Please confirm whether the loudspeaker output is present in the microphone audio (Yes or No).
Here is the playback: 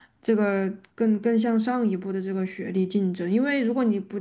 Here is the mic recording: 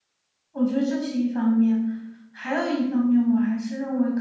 No